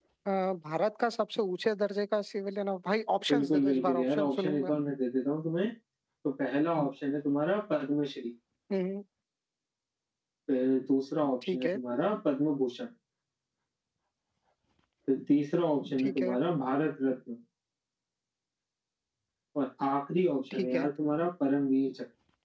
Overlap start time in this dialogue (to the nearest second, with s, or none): 3 s